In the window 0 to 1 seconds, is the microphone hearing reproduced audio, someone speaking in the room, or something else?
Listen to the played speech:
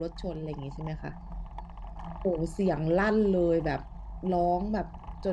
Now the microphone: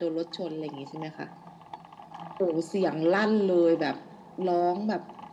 echo only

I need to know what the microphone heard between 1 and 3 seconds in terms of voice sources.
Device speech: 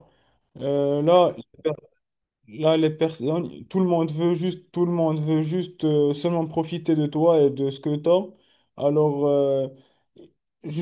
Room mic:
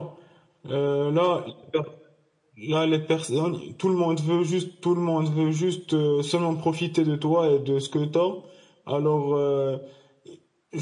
echo only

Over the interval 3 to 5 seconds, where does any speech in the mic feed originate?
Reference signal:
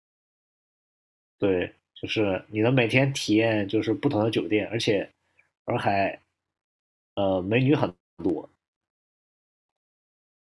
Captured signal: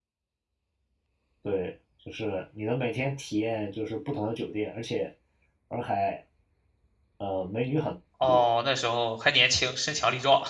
echo only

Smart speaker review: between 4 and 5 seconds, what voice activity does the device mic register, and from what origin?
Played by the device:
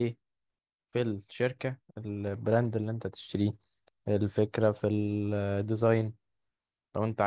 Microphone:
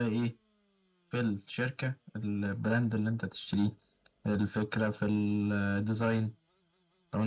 echo only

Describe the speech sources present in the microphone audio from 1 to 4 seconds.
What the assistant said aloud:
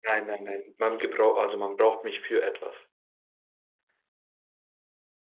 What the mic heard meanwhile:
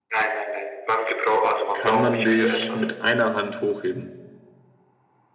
both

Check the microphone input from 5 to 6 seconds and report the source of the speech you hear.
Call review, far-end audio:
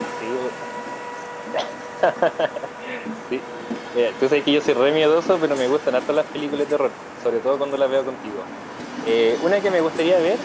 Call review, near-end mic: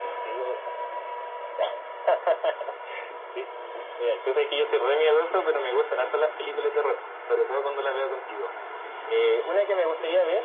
echo only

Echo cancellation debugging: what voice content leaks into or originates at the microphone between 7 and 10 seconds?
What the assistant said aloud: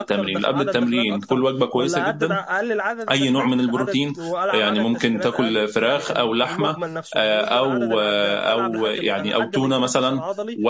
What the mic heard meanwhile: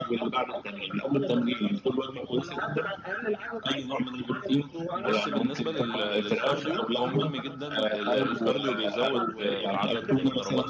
both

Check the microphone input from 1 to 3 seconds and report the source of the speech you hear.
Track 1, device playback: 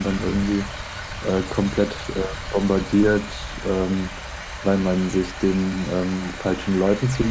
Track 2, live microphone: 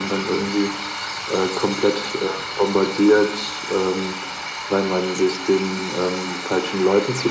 echo only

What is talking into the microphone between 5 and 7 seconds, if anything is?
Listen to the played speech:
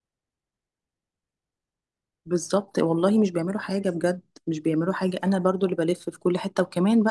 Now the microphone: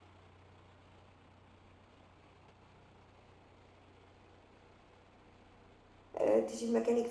user only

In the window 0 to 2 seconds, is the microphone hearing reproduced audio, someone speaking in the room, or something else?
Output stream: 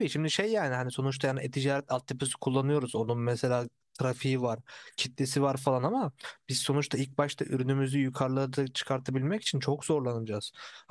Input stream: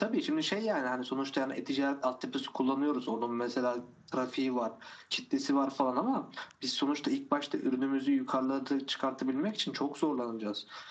echo only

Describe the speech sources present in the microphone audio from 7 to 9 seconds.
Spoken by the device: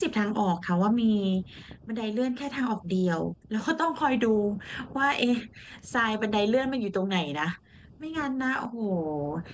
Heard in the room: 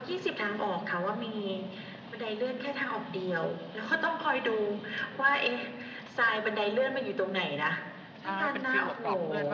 both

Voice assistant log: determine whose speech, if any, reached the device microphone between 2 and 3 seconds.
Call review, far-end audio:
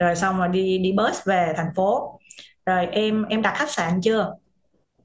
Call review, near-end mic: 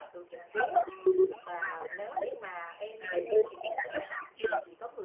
both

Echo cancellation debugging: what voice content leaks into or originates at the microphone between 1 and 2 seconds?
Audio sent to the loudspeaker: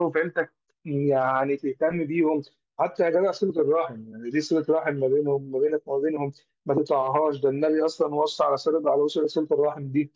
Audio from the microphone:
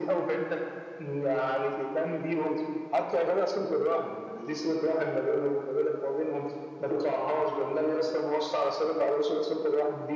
echo only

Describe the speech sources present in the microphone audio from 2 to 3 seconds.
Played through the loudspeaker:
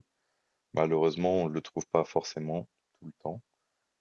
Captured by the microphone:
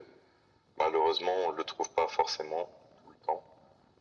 echo only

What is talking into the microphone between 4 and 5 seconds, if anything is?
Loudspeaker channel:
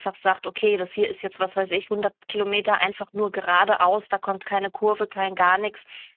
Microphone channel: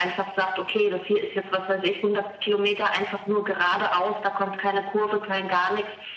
echo only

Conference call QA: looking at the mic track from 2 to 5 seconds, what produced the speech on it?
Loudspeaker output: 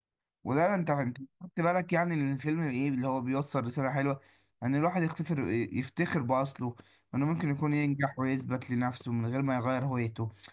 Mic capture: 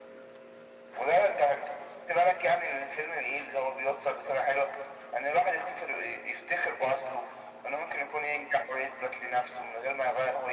echo only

